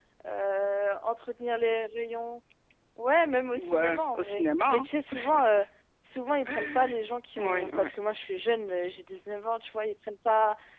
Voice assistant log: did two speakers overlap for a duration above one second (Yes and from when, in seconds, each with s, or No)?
Yes, from 3.6 s